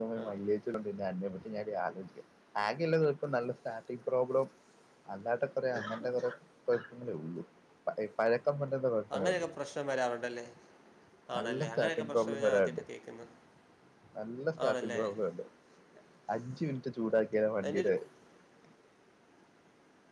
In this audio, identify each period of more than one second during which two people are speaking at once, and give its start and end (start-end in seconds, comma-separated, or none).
11.4-12.8